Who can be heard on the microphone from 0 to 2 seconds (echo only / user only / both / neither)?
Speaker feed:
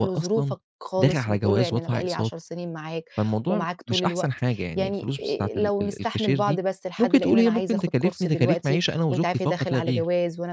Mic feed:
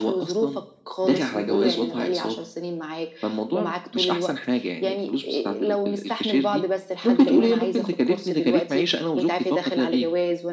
echo only